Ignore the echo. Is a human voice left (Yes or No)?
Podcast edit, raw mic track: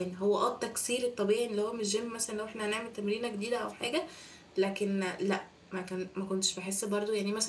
Yes